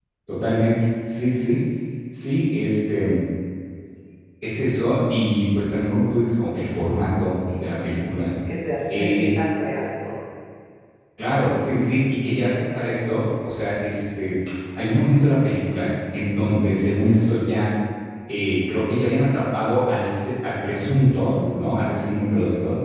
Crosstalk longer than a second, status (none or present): none